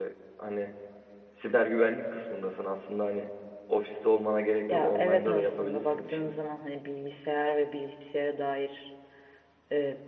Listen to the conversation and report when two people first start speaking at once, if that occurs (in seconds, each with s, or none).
4.7 s